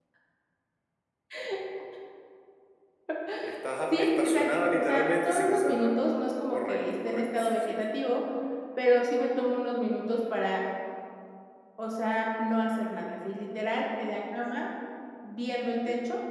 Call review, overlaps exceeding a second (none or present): present